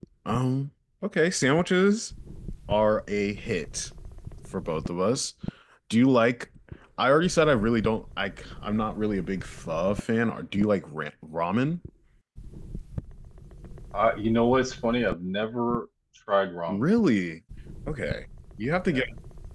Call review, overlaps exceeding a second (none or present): none